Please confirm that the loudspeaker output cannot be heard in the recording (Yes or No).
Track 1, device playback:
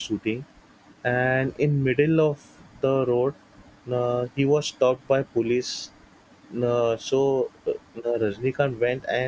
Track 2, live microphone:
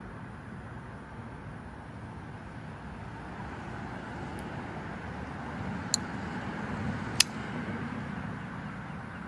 Yes